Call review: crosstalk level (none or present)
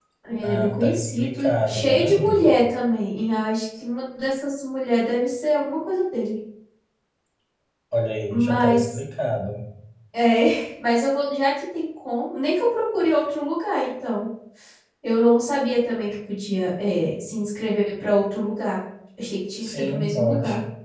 present